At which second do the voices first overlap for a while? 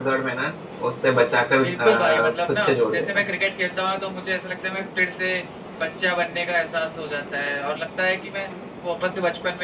1.6 s

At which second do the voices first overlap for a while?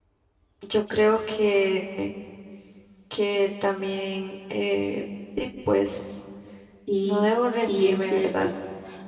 7.0 s

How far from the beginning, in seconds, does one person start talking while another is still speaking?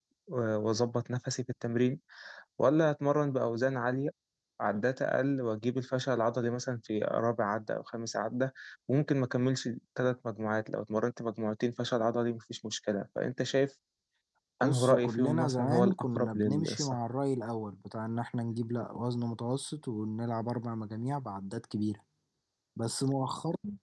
14.6 s

